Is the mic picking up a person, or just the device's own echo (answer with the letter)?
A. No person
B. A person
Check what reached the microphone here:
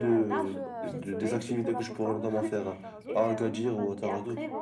B